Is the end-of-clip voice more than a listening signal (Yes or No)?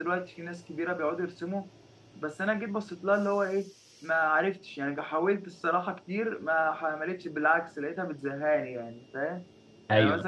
No